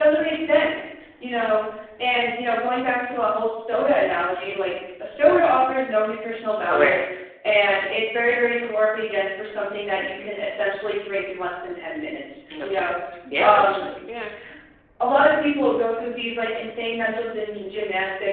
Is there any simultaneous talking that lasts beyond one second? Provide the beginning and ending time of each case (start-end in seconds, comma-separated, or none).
none